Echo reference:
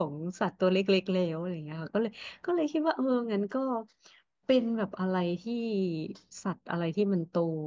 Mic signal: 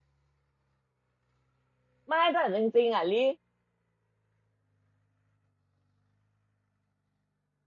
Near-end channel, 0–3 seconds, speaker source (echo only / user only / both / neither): user only